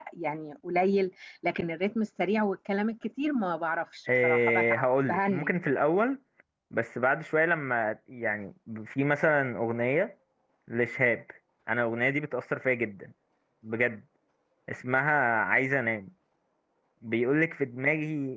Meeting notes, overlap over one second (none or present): present